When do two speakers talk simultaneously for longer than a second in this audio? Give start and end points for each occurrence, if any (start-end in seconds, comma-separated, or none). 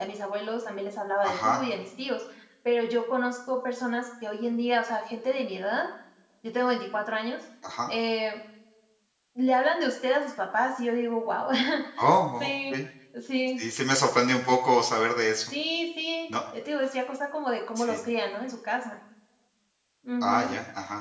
none